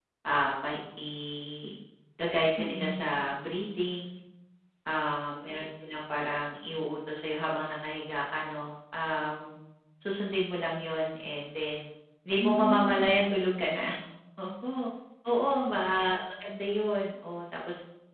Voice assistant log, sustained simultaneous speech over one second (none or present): present